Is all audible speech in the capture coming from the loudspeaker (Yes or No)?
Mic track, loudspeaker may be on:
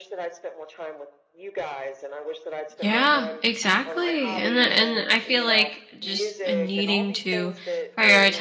No